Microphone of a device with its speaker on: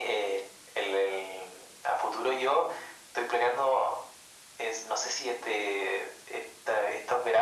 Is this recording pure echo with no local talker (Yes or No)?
Yes